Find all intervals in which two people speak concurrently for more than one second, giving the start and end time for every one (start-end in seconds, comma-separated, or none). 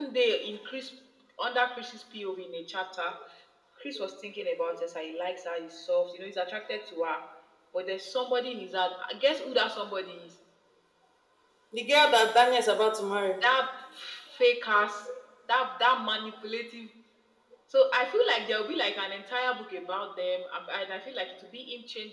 none